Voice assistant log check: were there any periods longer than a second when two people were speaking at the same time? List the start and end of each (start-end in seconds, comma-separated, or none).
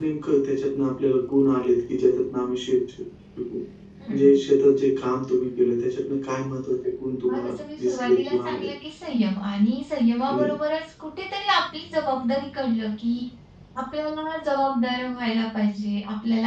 7.3-8.7